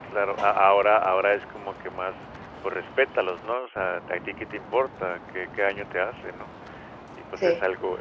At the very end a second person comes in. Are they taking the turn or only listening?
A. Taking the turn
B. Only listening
B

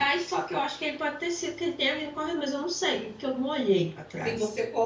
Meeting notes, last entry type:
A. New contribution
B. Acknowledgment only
A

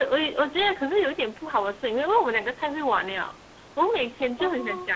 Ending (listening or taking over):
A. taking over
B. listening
B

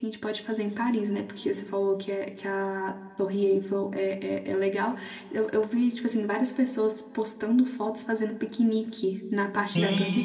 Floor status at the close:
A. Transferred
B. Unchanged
A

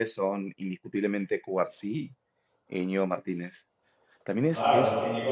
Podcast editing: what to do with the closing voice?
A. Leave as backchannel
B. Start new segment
B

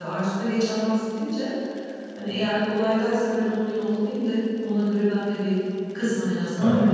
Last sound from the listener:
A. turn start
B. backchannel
A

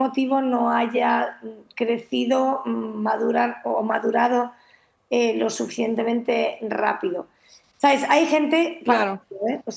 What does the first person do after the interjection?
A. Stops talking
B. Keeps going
B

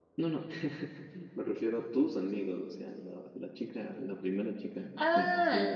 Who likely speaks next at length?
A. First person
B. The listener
B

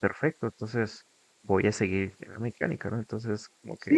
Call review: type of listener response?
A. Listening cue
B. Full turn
B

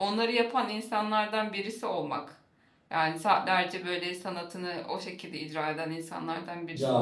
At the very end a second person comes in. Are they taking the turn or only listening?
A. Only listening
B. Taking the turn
B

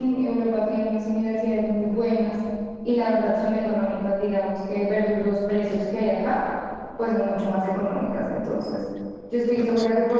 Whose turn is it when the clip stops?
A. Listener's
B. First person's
B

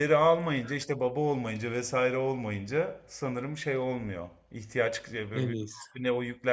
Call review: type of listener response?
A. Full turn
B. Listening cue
B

